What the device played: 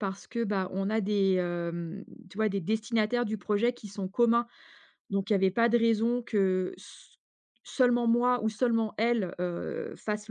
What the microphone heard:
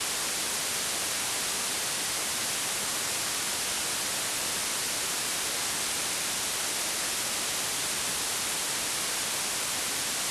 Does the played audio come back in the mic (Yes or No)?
No